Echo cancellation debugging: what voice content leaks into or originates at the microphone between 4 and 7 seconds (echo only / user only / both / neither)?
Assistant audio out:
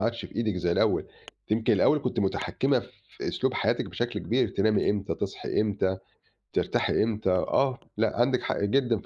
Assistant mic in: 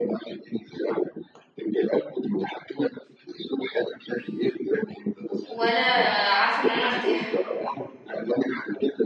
both